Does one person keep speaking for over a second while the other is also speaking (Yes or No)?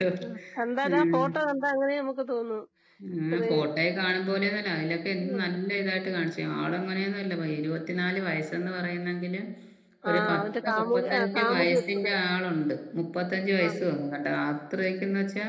Yes